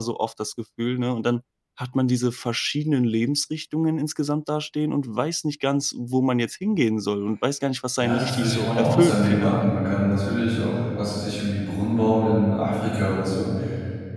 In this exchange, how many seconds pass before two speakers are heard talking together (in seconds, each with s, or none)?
8.0 s